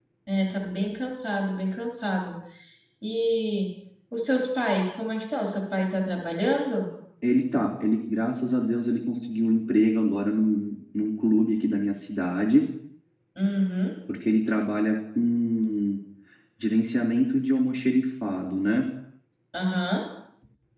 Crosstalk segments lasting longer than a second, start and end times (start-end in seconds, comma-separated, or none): none